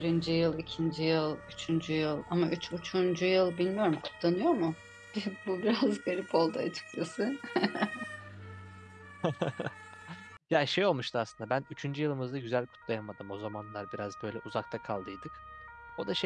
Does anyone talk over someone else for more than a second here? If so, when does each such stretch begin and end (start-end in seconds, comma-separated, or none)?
none